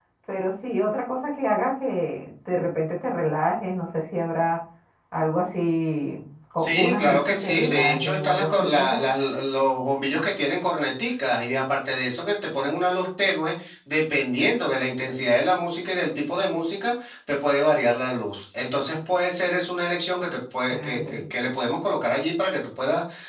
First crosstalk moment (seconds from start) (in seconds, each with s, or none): 6.6 s